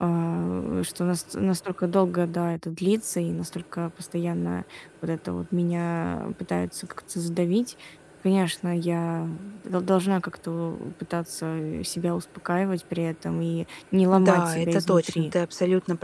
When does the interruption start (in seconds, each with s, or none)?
14.1 s